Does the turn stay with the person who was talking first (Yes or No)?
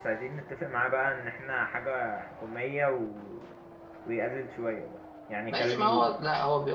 No